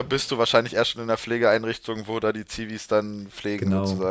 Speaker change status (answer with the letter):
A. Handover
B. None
A